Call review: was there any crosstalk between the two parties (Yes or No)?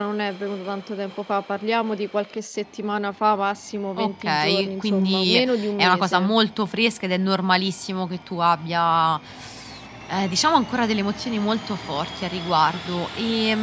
Yes